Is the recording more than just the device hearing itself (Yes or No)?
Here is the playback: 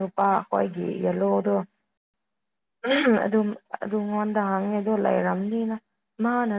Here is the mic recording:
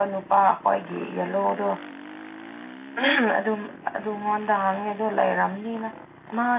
No